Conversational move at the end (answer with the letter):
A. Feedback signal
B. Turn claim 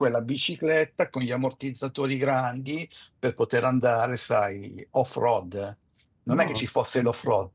A